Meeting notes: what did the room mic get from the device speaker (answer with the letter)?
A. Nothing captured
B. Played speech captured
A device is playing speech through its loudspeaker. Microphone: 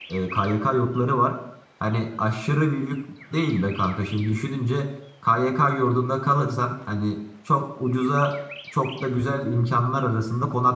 A